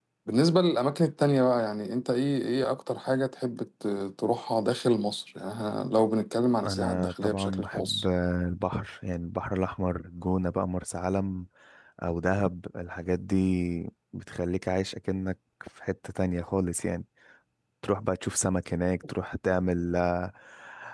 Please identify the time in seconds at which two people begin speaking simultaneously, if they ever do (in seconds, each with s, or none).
6.6 s